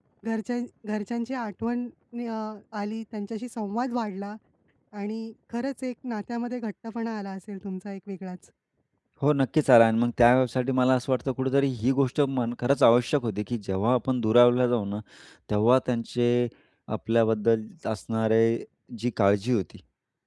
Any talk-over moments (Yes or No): No